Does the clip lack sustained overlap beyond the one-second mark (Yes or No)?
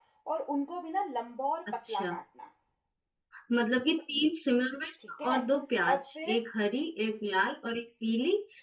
Yes